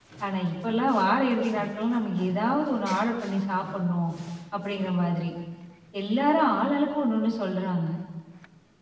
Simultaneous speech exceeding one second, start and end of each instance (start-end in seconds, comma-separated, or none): none